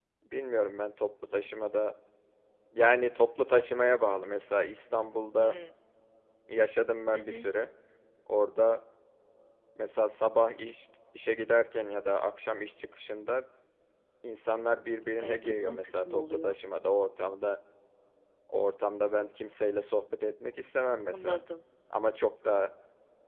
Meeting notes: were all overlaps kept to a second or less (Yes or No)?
No